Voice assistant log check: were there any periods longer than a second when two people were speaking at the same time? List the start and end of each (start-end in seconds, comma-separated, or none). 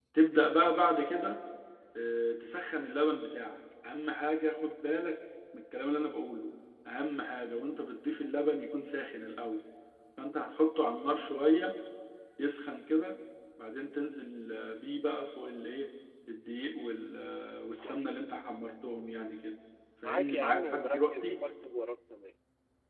20.0-21.4